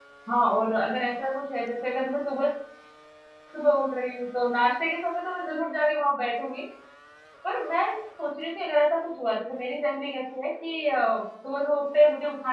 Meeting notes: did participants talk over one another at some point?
No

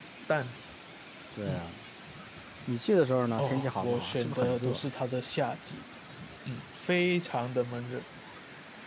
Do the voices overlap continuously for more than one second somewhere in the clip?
Yes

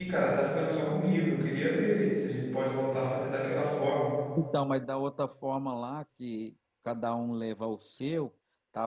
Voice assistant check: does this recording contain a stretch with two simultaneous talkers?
No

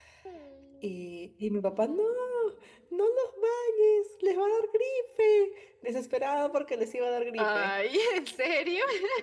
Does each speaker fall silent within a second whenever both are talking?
Yes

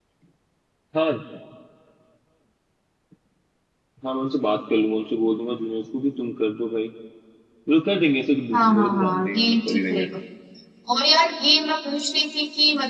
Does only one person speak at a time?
No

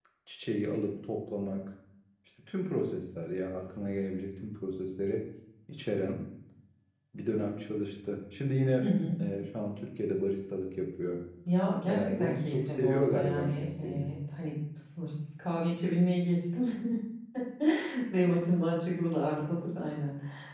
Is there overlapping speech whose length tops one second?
Yes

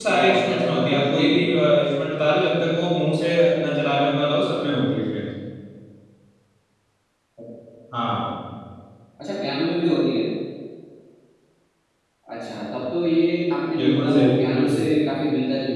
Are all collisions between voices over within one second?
No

